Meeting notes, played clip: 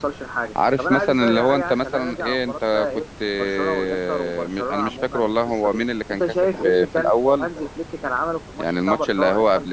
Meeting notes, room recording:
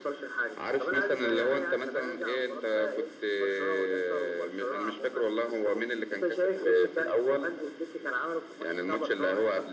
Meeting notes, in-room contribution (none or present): none